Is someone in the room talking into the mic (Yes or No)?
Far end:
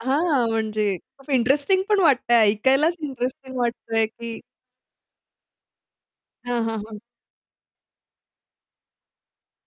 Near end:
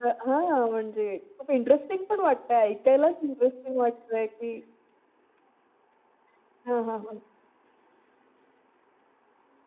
No